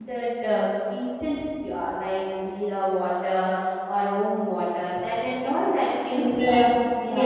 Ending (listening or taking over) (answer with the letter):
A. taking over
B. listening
A